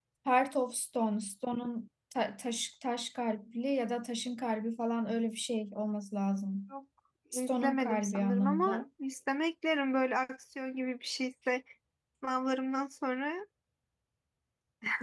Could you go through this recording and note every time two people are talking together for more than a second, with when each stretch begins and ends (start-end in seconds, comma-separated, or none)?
7.3-8.8